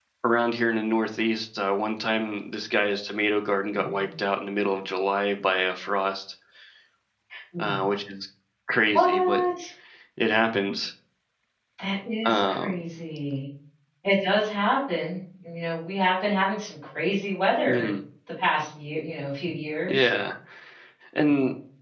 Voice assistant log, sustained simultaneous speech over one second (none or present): none